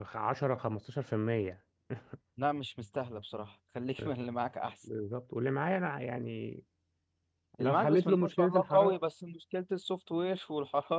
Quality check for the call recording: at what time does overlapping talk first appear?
7.6 s

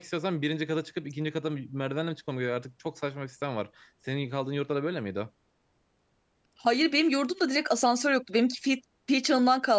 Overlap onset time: none

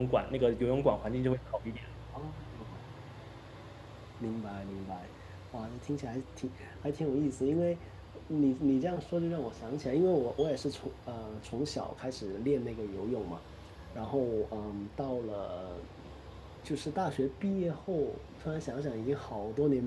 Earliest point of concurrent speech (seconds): none

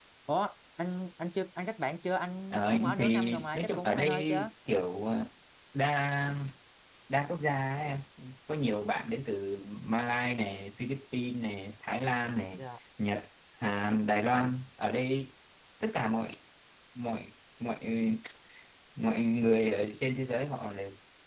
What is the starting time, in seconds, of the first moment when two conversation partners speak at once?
2.5 s

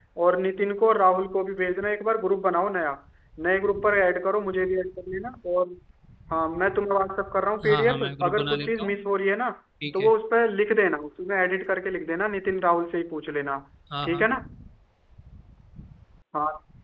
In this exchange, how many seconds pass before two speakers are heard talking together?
7.6 s

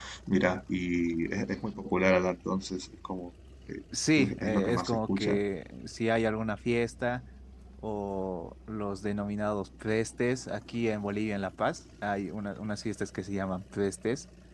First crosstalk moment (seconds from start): 3.9 s

